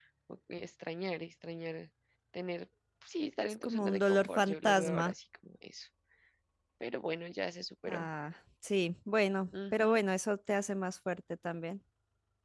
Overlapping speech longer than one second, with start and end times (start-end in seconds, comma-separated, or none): 3.6-5.1